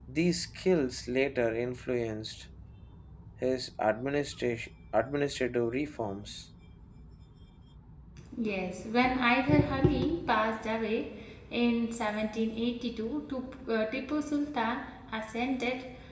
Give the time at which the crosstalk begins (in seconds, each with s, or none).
none